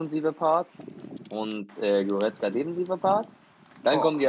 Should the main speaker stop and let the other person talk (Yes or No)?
No